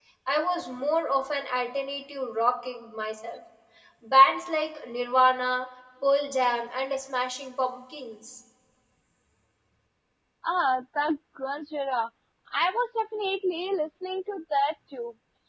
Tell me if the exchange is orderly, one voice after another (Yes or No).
Yes